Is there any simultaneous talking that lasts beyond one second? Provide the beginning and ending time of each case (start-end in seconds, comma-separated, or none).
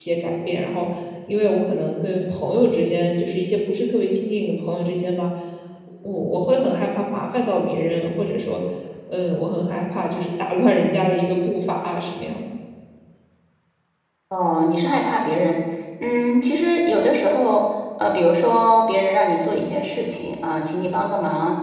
none